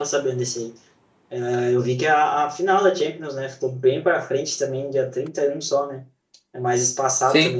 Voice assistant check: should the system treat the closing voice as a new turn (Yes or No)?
No